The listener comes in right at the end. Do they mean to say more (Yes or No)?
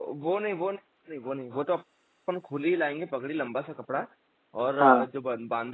No